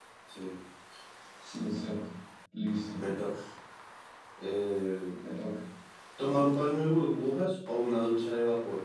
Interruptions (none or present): none